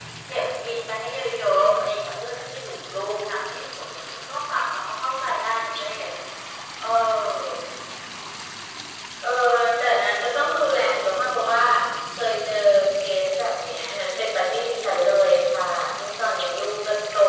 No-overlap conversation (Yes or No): Yes